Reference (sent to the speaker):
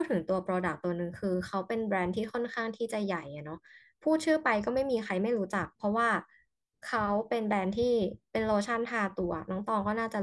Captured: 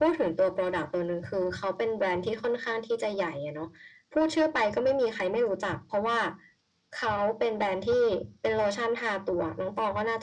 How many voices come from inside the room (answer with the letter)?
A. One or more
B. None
B